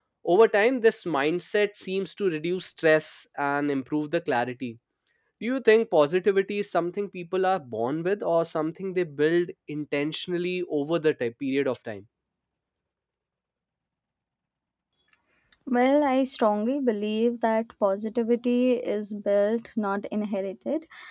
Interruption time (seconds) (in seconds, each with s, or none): none